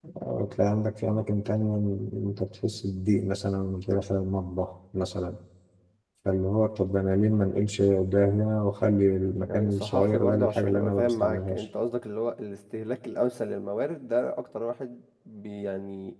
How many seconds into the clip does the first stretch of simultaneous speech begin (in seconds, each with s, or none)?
9.5 s